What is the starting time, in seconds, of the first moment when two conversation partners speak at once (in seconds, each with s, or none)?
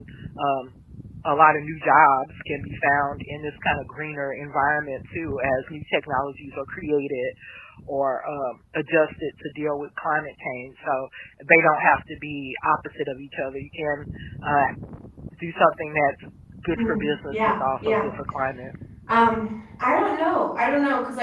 16.8 s